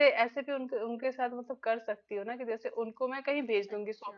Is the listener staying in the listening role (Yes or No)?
Yes